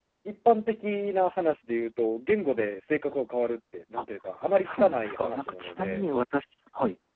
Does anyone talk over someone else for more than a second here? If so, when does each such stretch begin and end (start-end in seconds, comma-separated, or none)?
4.7-6.0